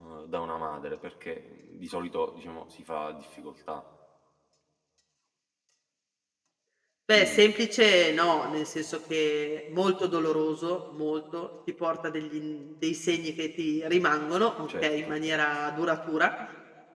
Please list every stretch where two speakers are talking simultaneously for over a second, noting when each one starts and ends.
none

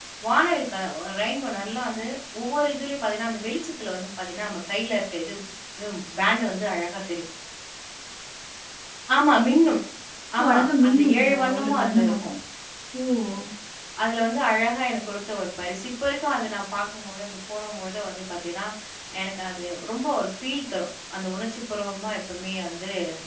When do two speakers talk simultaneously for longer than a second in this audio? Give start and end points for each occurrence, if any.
10.4-12.2

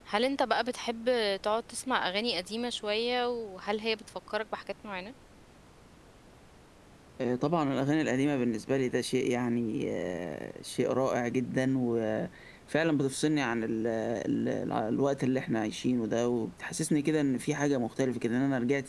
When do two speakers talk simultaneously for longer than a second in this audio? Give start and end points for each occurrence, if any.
none

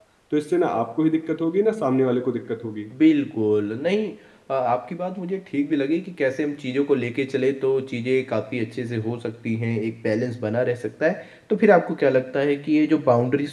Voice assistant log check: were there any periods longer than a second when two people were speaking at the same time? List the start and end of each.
none

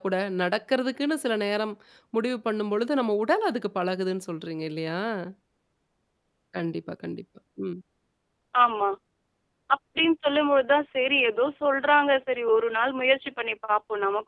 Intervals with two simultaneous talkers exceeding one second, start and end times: none

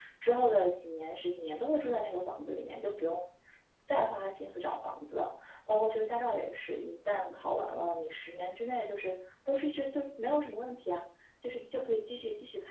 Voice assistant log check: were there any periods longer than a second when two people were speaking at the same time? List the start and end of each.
none

